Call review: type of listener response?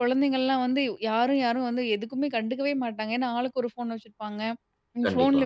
listening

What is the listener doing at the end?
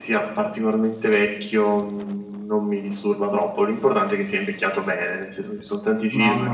taking over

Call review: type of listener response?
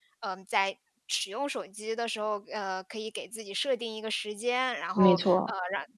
listening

